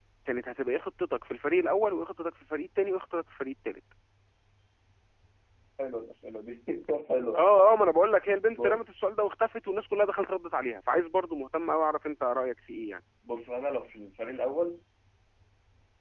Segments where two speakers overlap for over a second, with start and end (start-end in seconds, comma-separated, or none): none